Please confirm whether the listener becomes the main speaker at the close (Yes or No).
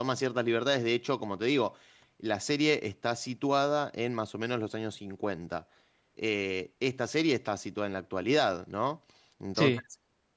No